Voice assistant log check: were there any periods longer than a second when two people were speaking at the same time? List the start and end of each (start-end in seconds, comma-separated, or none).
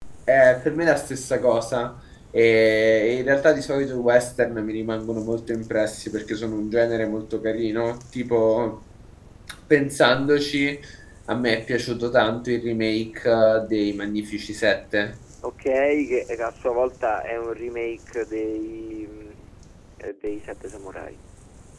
none